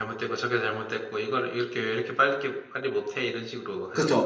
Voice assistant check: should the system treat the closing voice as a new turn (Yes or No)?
Yes